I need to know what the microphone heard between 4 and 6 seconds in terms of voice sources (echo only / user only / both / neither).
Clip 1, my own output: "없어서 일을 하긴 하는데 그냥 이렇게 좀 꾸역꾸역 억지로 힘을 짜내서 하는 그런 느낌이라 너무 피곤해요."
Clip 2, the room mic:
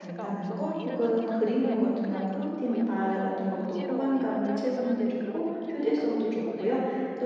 both